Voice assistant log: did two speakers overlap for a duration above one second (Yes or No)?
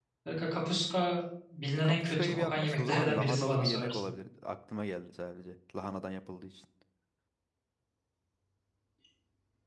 Yes